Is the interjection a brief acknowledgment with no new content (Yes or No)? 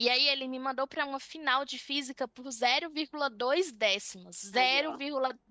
Yes